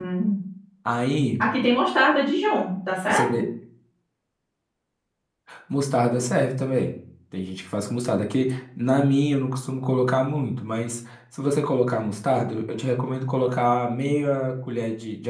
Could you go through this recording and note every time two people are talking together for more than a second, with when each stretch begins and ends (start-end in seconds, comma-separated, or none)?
none